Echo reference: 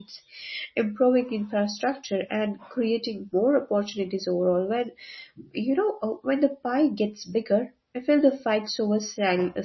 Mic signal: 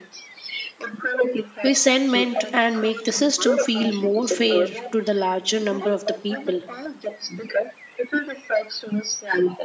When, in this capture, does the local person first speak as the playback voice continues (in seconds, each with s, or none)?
1.6 s